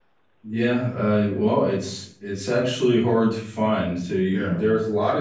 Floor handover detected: No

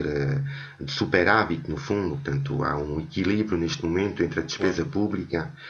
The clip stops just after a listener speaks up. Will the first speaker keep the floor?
Yes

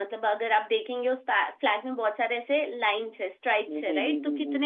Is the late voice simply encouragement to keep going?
Yes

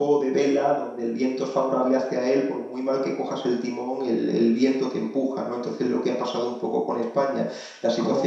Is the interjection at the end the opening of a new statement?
Yes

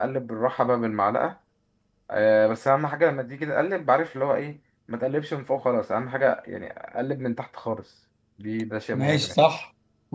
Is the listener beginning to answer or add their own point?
Yes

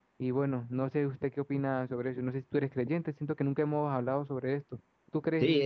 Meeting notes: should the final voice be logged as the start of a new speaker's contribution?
Yes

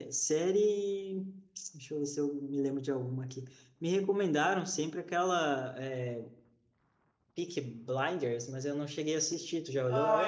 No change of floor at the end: No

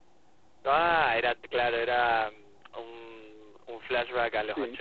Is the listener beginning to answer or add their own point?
Yes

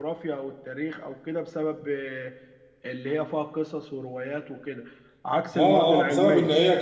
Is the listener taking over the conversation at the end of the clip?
Yes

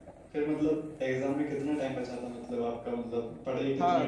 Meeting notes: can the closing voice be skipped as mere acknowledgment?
No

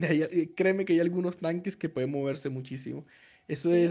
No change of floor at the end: Yes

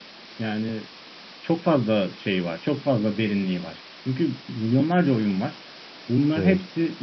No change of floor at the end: Yes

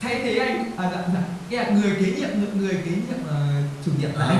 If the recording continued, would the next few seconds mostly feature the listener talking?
Yes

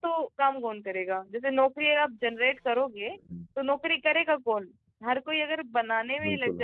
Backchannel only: Yes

